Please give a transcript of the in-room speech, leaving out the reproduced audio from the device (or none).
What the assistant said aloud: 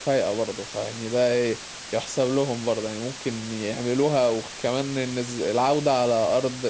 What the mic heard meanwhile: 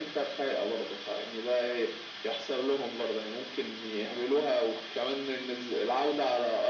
none